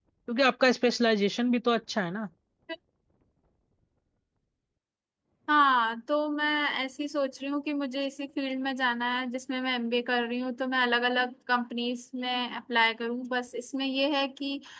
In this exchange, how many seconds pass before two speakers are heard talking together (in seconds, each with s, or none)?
none